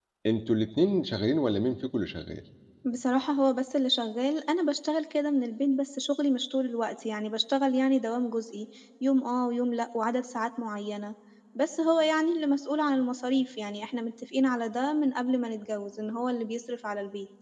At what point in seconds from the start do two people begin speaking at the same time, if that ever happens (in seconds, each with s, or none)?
none